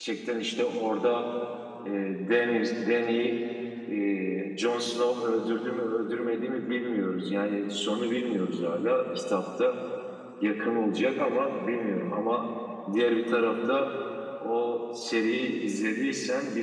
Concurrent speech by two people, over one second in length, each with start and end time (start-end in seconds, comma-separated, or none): none